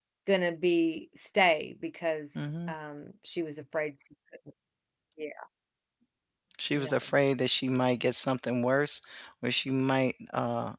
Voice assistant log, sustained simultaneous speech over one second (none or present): none